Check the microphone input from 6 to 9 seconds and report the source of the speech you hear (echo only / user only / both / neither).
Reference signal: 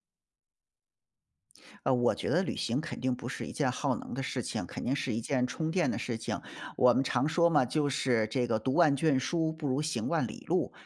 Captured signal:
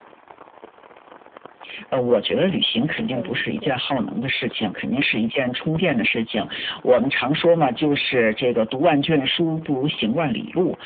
echo only